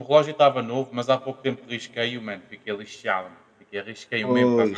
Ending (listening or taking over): listening